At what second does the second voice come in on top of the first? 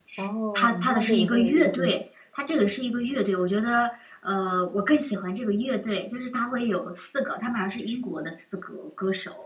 0.5 s

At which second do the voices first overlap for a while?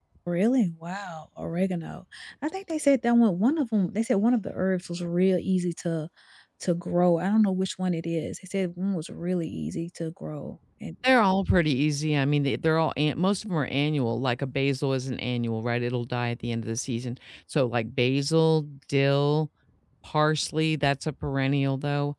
none

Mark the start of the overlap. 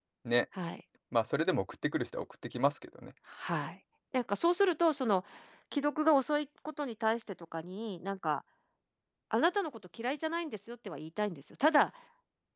none

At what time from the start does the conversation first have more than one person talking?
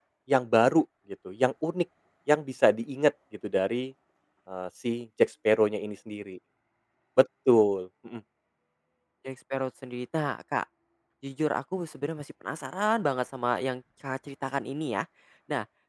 none

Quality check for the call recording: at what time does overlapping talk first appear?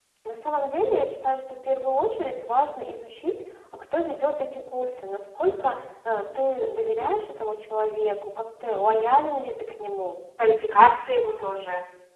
none

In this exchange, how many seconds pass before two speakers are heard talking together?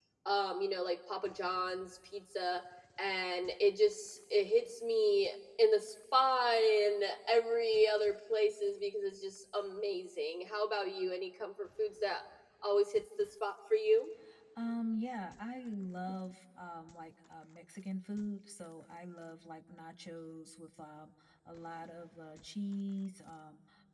none

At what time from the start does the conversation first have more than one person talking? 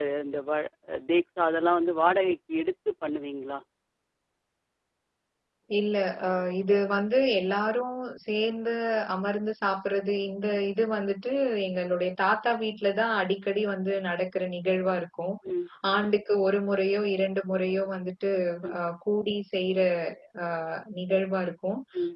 none

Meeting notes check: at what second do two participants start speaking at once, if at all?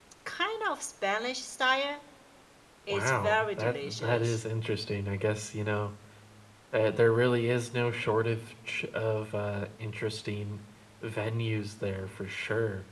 2.9 s

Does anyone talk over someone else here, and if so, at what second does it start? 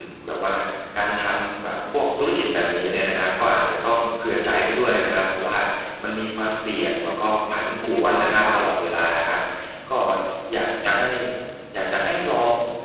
7.1 s

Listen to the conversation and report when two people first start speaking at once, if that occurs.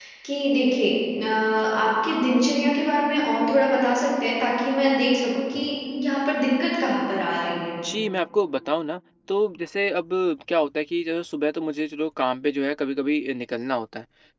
none

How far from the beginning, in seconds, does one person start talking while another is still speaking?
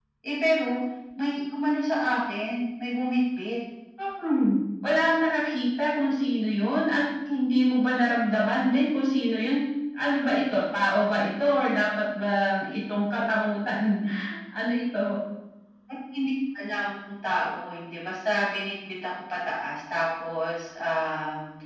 none

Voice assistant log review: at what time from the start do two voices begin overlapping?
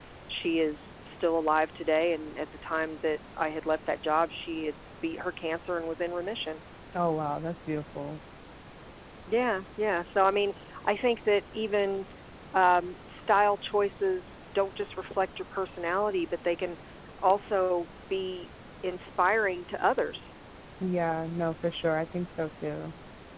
none

